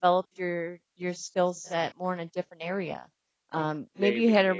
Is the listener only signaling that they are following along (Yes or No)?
Yes